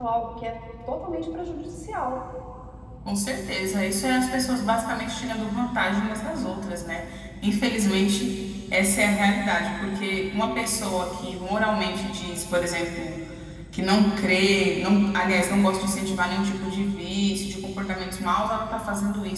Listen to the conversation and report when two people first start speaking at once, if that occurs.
none

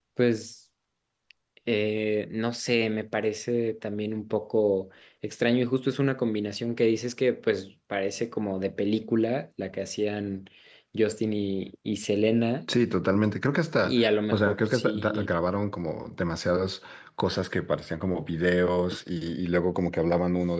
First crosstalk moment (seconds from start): 14 s

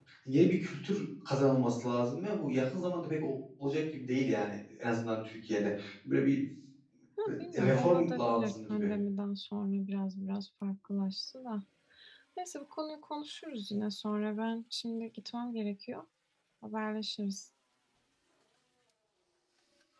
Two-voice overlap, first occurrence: 8 s

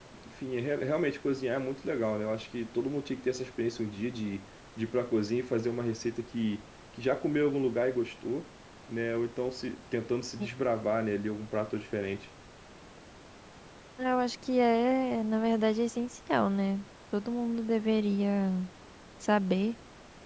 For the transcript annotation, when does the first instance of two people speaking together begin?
none

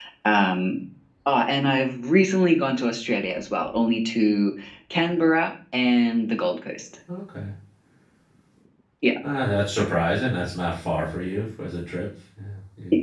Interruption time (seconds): none

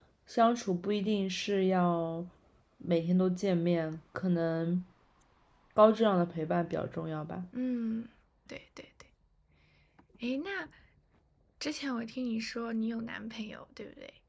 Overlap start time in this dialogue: none

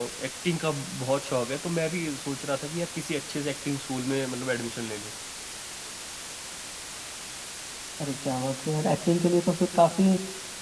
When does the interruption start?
none

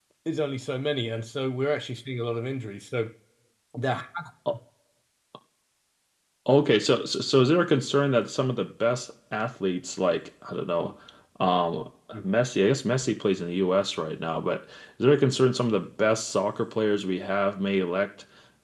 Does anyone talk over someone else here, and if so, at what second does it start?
none

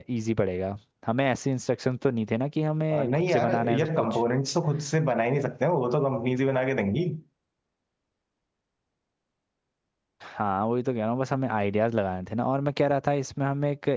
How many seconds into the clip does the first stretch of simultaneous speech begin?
3 s

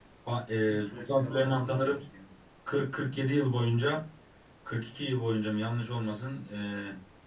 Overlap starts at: 1 s

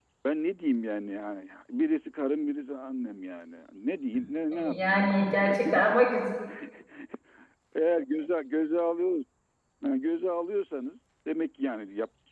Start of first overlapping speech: 5 s

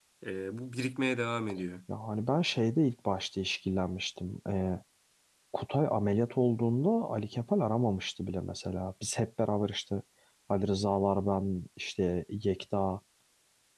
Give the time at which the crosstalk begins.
none

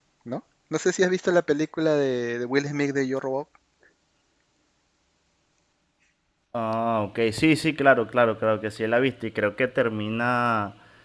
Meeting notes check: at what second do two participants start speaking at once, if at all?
none

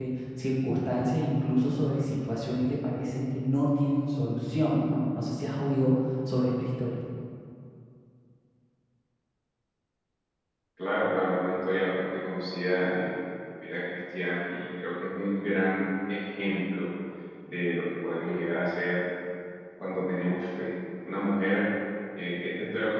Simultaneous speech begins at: none

